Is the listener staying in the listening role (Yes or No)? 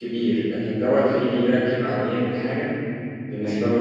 No